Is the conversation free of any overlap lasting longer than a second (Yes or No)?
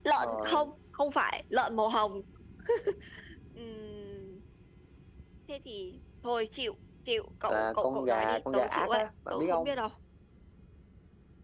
No